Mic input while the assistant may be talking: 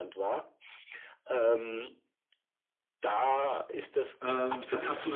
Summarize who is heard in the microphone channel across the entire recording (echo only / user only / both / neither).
both